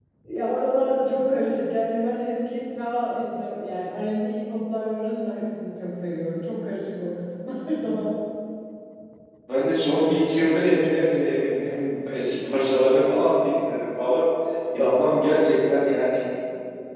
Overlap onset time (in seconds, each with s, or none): none